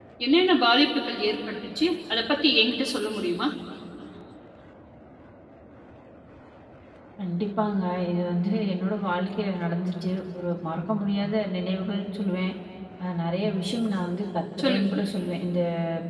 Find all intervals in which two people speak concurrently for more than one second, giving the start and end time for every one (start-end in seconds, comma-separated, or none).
none